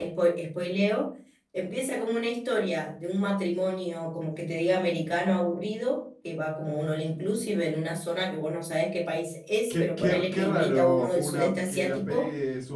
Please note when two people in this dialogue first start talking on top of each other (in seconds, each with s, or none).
9.7 s